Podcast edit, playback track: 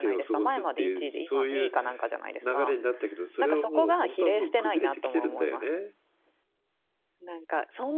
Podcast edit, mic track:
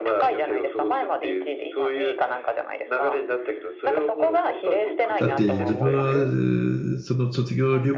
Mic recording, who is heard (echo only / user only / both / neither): both